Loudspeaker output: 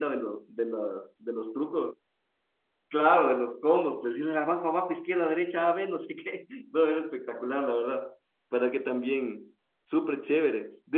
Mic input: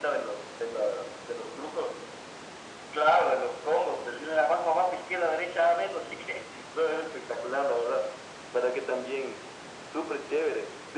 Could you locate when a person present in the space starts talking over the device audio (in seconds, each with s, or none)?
none